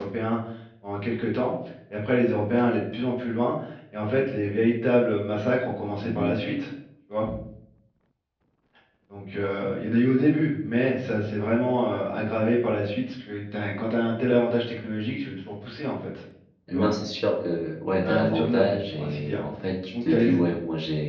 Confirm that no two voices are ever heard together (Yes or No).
No